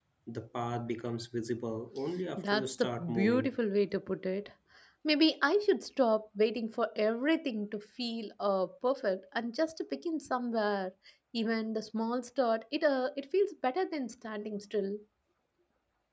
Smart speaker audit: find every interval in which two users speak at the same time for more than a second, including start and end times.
2.4-3.6

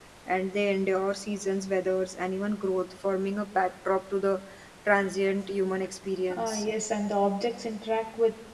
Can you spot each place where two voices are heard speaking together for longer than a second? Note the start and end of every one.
none

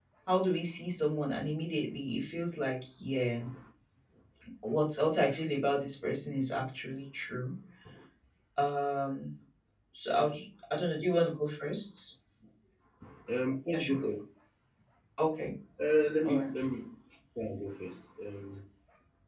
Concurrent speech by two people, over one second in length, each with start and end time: none

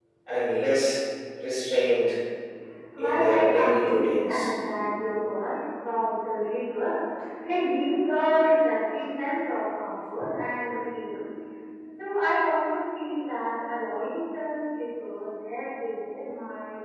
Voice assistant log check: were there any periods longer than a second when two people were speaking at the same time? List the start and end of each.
3.0-4.4

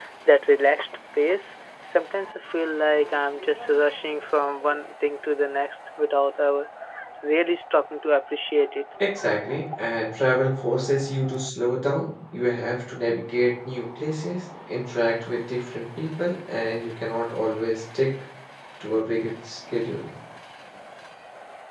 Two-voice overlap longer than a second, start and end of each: none

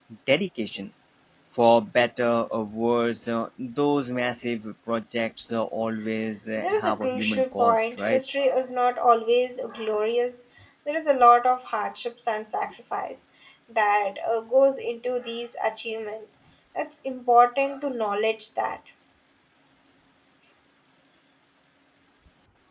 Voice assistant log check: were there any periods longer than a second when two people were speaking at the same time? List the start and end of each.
6.6-8.2

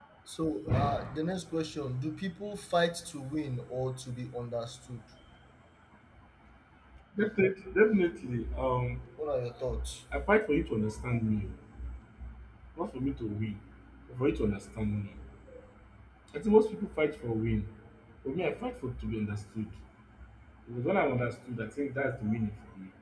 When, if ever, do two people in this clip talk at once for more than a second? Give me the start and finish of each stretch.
none

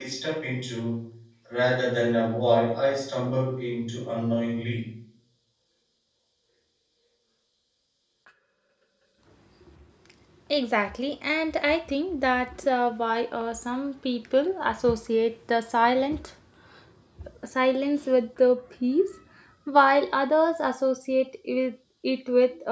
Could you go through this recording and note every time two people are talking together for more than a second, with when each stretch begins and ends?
none

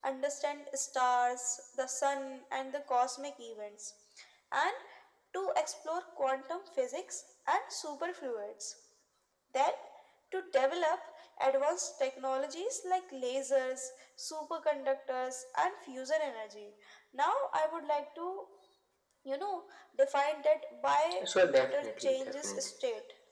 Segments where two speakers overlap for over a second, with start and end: 21.2-22.7

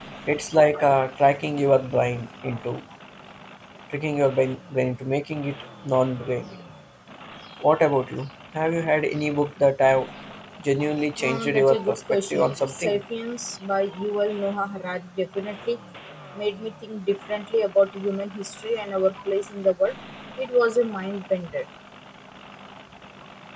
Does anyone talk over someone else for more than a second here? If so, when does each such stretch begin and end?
11.2-13.0

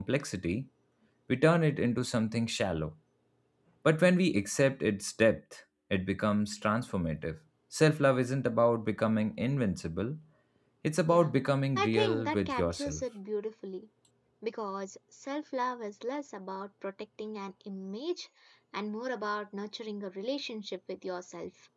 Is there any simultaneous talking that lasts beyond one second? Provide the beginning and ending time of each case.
11.8-13.0

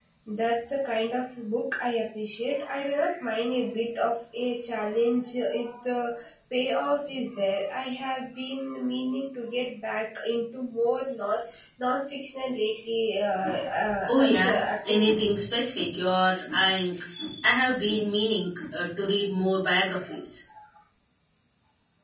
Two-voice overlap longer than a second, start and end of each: 14.1-15.3

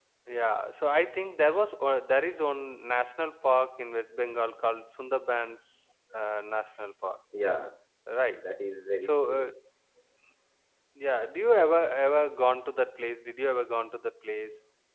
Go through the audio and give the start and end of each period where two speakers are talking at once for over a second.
none

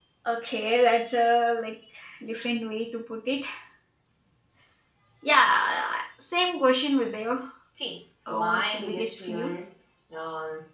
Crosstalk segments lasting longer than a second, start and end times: 8.3-9.5

